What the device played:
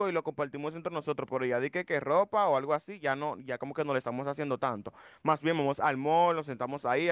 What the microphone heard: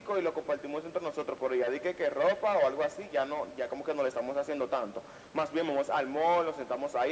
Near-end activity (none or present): none